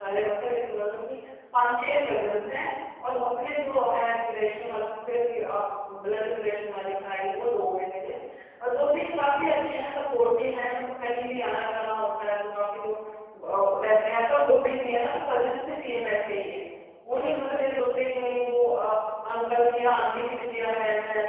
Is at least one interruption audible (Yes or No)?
No